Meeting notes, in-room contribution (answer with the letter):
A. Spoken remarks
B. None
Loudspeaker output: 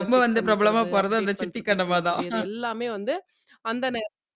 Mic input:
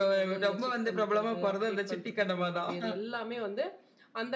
B